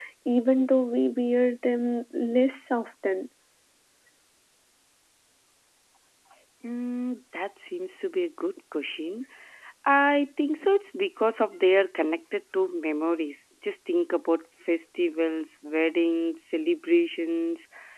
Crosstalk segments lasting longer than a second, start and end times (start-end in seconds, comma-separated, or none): none